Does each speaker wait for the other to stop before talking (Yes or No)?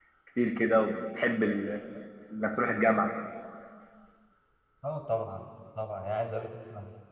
Yes